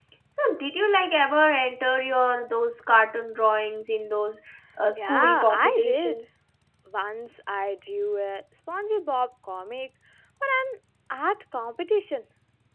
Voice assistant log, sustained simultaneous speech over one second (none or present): present